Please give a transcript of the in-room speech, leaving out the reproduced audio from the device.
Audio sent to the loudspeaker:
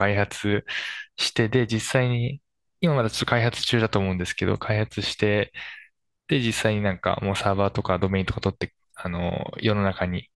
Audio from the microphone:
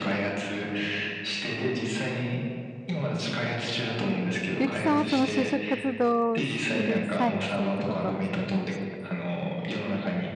ゆきさんはその就職活動をする際にそういったことはされてましたか

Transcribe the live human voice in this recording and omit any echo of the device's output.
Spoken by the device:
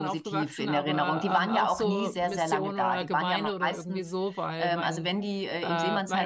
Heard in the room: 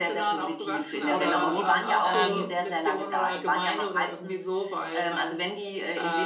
oder so. Ähm,

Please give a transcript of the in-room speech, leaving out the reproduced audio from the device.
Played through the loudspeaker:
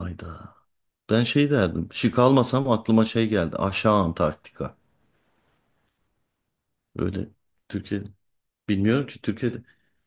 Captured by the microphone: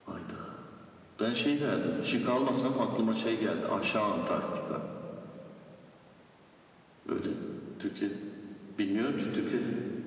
none

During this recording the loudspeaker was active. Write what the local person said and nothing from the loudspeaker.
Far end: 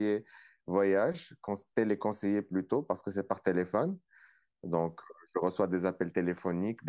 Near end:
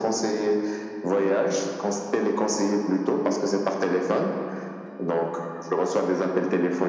none

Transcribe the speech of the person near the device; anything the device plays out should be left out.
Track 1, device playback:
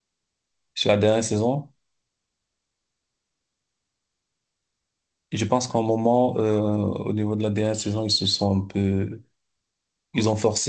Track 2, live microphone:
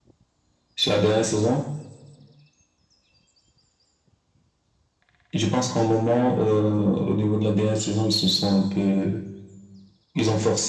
none

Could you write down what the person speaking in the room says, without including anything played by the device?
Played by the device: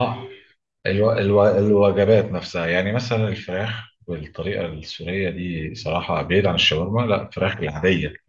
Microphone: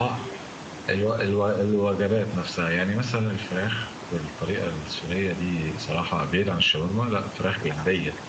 none

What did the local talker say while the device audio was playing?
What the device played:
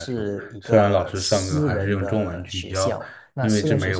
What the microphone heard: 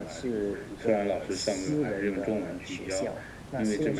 none

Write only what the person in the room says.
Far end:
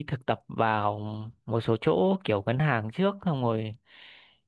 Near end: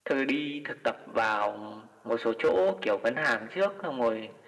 none

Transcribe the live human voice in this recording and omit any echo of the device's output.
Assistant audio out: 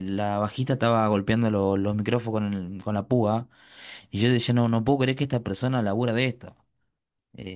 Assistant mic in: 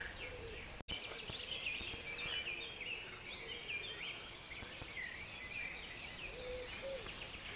none

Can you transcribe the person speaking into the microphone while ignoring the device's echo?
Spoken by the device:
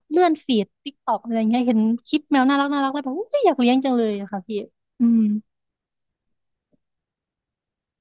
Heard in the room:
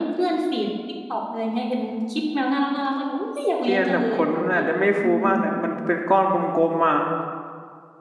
พี่อันแบบขนอาจจะไม่ฟูมากแต่มันเป็นก้อนกลมๆอ่ะ

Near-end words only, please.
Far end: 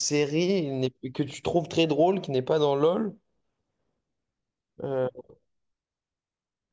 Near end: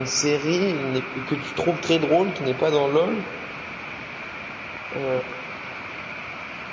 none

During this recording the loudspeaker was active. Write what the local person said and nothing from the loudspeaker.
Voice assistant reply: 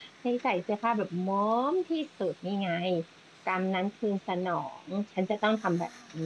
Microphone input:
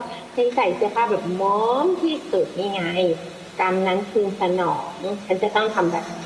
none

